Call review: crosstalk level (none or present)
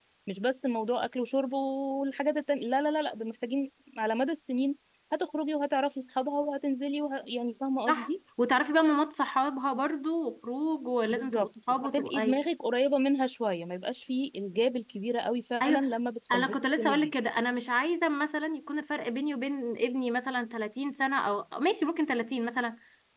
present